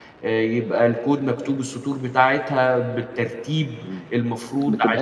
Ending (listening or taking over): taking over